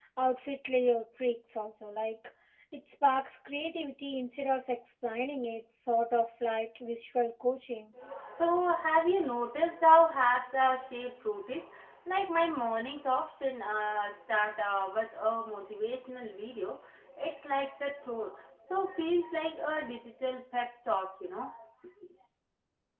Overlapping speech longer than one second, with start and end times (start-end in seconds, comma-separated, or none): none